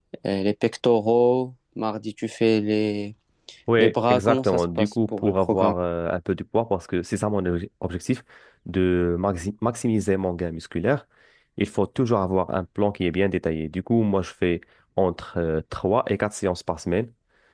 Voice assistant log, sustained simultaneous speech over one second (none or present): present